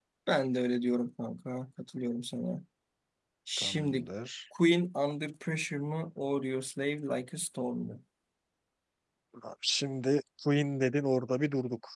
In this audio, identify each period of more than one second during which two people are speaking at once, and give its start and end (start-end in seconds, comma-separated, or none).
none